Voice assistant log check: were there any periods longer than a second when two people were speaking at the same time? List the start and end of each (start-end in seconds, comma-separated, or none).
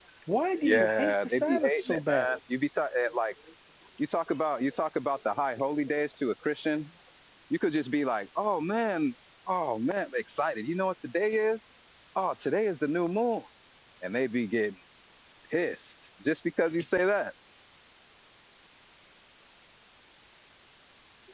0.6-2.4